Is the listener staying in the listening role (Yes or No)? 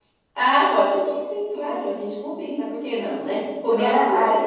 No